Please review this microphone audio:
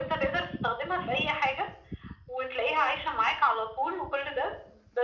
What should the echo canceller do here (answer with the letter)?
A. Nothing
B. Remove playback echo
B